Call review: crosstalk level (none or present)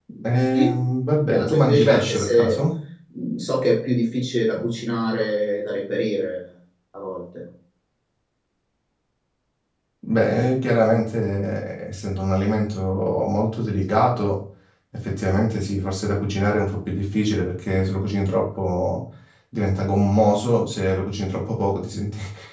present